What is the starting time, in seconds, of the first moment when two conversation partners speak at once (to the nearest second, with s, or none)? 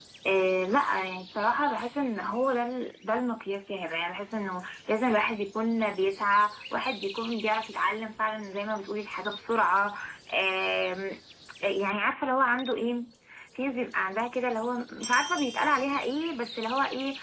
none